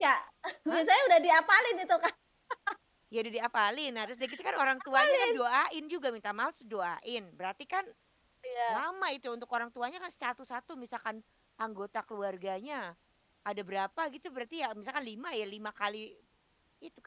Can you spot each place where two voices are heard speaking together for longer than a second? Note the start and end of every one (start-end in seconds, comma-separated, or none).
none